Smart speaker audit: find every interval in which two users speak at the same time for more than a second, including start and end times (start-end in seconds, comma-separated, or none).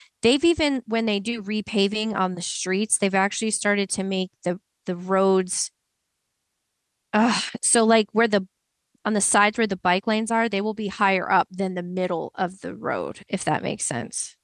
none